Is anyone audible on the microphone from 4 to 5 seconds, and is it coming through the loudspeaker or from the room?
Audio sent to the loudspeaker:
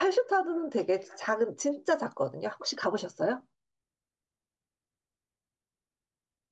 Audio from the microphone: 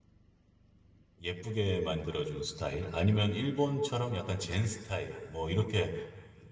user only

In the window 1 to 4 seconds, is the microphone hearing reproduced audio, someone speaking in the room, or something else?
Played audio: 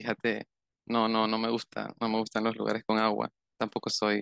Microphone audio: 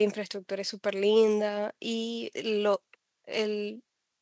user only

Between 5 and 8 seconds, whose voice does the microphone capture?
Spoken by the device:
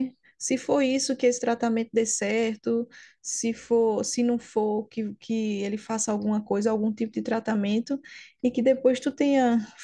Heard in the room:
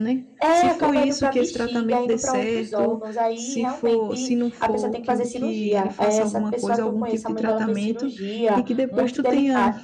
both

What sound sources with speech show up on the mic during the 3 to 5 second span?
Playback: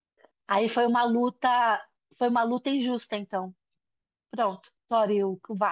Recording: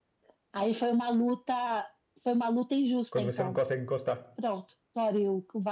both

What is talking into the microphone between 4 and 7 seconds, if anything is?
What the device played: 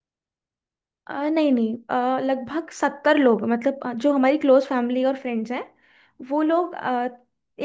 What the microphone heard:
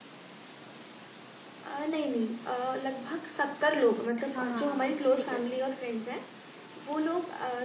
both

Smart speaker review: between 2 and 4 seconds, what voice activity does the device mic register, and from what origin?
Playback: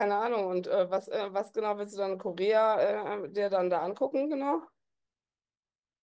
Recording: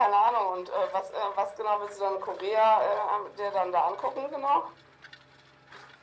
echo only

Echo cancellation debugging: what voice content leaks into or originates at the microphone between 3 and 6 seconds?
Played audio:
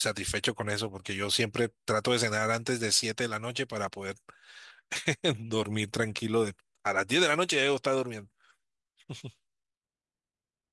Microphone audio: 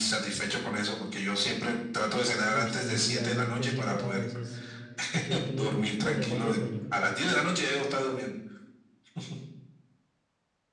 both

